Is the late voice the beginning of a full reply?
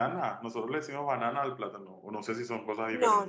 Yes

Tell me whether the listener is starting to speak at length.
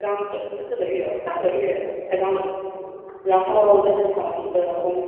No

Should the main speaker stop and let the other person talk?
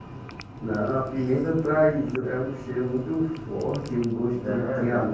Yes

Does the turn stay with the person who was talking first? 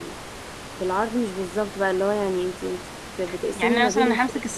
No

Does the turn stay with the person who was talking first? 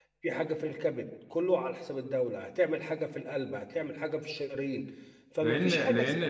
No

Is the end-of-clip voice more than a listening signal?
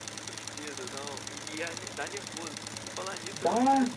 No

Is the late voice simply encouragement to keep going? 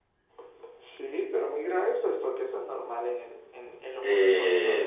No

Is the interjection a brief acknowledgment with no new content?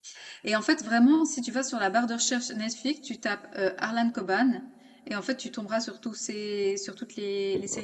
No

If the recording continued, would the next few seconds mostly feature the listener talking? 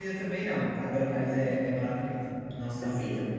Yes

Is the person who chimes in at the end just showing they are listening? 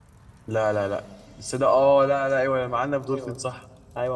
No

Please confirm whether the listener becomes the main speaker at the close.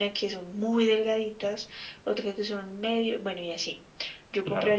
No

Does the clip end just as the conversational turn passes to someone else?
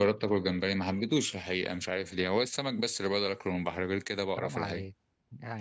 Yes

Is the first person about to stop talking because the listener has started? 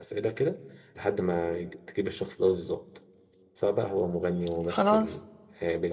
No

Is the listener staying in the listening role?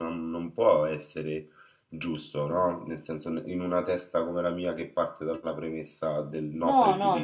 No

